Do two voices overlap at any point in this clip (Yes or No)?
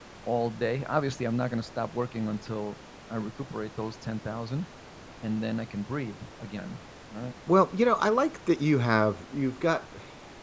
No